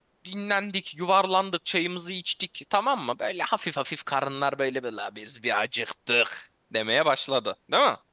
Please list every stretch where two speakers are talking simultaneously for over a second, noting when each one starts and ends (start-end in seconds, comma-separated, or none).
none